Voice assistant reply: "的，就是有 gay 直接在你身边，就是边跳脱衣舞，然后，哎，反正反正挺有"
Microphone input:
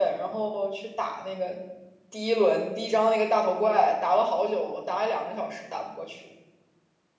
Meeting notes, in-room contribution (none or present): present